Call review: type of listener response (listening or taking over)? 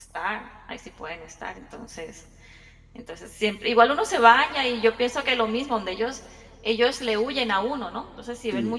listening